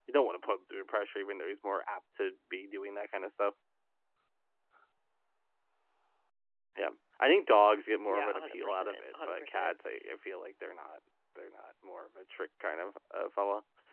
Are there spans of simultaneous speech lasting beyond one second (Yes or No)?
Yes